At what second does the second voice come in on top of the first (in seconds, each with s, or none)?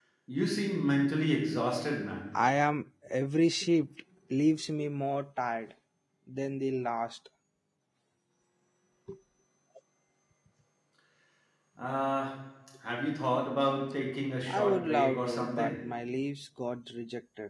14.5 s